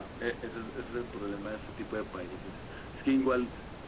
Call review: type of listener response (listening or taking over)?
listening